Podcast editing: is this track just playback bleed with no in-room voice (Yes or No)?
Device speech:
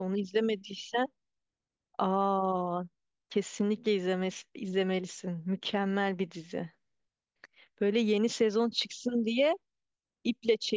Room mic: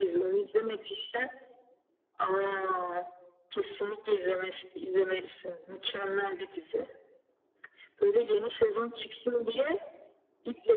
Yes